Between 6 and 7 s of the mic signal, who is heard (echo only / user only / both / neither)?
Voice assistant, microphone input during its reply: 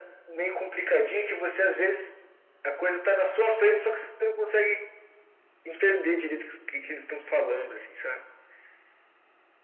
echo only